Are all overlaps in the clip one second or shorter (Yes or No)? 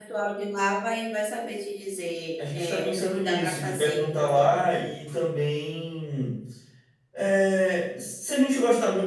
No